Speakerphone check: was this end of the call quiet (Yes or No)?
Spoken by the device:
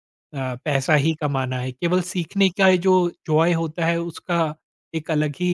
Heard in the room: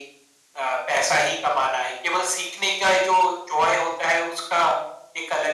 Yes